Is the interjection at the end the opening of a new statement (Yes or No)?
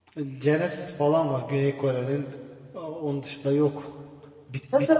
No